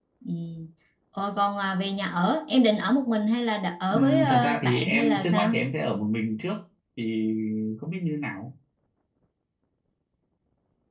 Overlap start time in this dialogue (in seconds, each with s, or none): 3.9 s